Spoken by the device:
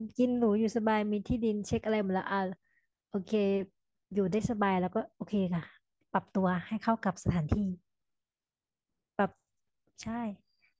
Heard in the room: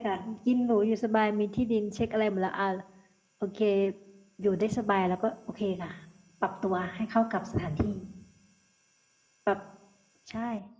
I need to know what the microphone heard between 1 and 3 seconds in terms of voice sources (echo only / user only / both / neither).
echo only